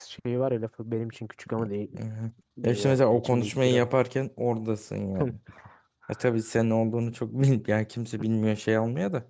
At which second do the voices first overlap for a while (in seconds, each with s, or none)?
2.6 s